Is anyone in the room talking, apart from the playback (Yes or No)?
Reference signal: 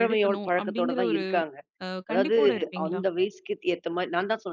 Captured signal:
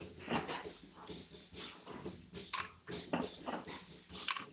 No